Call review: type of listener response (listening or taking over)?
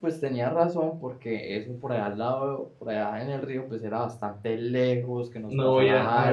taking over